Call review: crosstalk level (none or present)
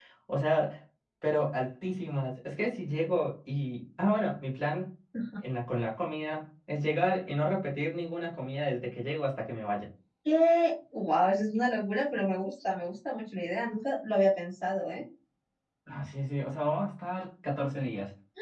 none